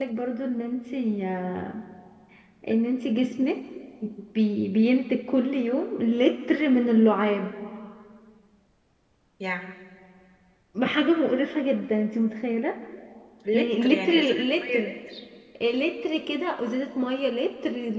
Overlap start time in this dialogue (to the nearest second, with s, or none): 14 s